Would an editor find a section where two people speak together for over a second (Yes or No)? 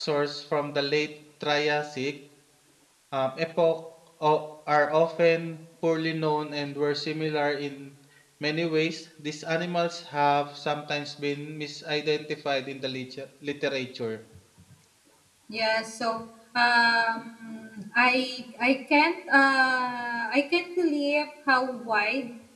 No